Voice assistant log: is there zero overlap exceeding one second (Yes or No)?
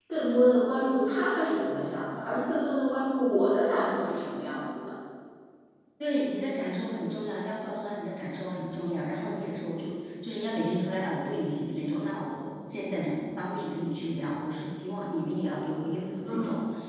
Yes